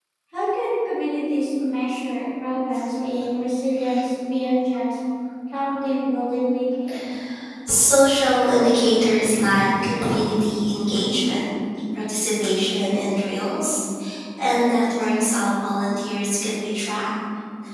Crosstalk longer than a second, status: none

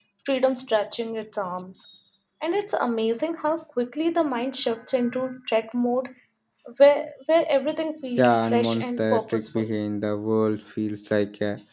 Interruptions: present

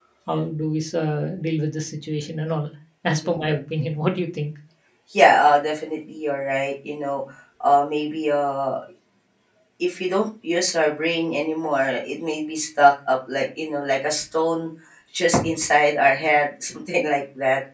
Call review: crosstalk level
none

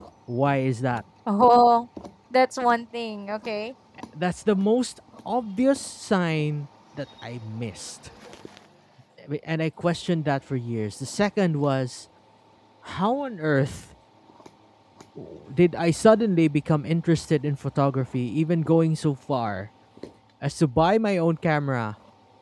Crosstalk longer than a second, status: none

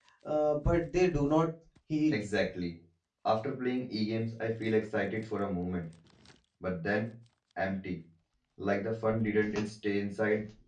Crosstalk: none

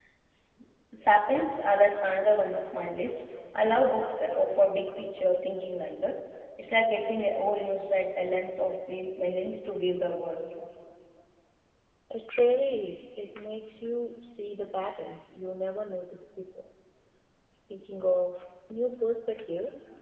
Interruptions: none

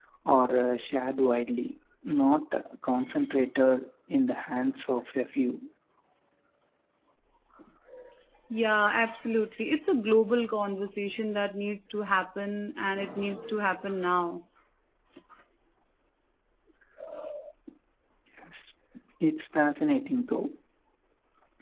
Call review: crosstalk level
none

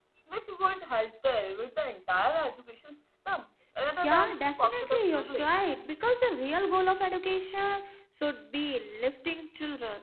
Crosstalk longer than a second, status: present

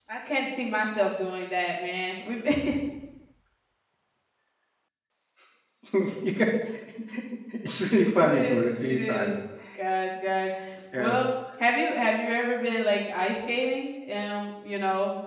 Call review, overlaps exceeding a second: present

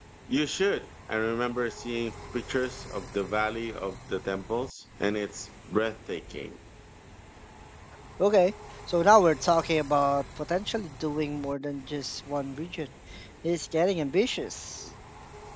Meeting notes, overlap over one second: none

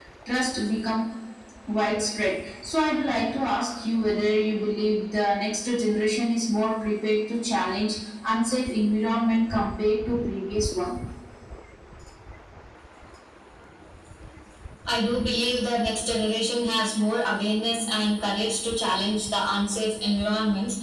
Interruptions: none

